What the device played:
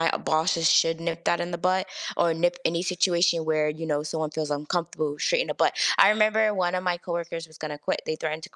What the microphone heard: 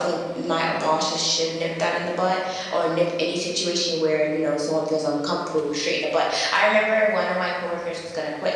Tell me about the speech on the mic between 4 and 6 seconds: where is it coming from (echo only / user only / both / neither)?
echo only